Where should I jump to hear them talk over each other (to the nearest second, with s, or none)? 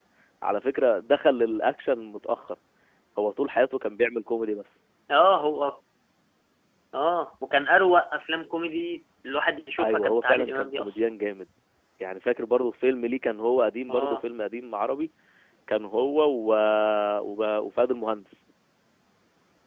10 s